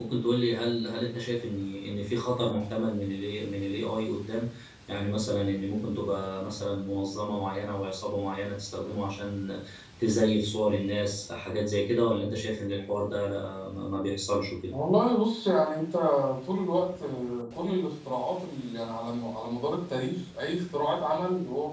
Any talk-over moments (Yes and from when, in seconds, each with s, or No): No